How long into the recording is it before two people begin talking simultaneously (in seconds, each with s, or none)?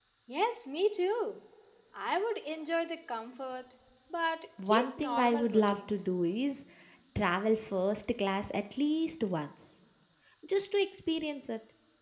4.6 s